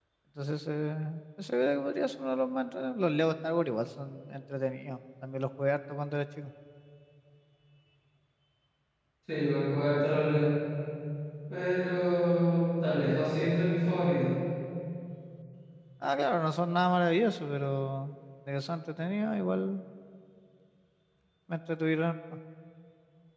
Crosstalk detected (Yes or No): No